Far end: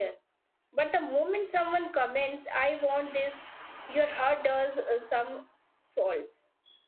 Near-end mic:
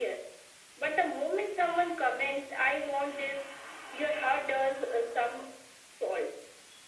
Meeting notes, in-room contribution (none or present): none